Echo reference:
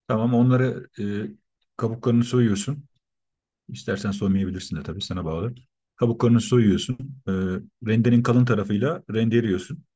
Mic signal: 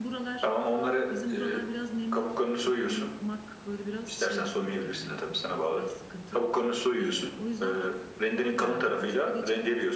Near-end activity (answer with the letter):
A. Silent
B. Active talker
B